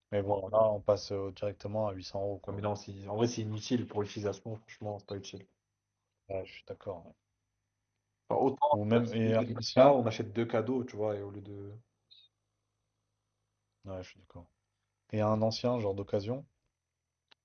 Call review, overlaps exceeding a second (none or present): present